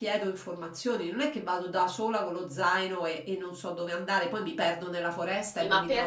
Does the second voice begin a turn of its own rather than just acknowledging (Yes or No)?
Yes